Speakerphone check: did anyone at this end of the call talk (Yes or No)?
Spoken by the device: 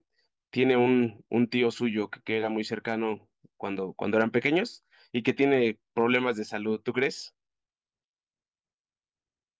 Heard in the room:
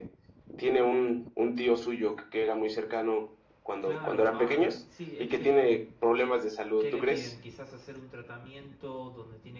Yes